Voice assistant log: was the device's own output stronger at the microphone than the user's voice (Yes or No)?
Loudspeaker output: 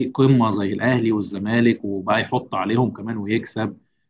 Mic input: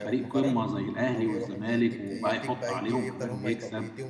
Yes